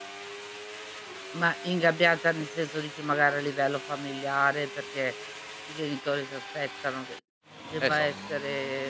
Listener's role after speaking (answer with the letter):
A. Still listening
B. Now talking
A